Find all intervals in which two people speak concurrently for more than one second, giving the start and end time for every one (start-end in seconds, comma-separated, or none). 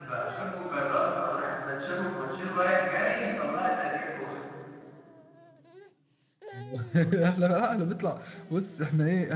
none